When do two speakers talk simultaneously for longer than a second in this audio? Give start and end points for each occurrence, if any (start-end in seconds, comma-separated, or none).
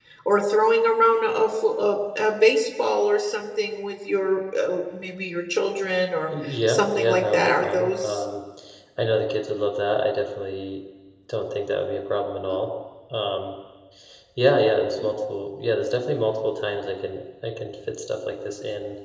6.4-8.2